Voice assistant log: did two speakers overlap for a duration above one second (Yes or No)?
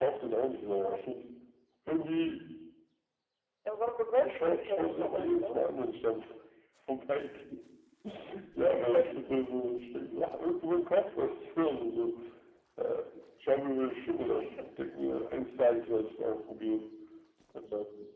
Yes